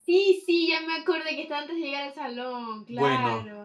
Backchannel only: No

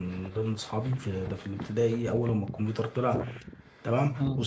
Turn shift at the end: No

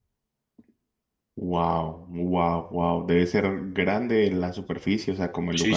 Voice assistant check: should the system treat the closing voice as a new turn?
Yes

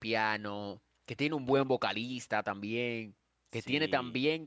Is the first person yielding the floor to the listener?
No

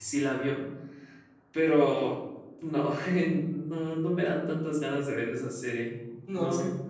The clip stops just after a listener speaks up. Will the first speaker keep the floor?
No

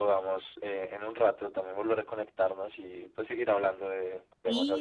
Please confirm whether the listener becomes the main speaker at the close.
Yes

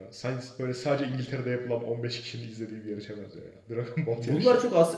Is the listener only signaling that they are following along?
No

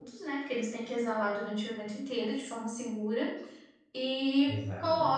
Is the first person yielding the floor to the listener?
No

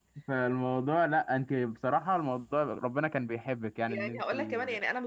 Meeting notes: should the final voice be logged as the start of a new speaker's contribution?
Yes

